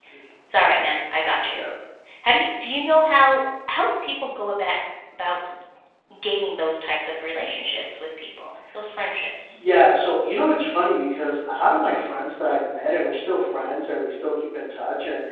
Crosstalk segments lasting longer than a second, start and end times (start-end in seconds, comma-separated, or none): none